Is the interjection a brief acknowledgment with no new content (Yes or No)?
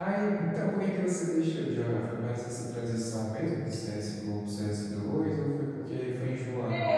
No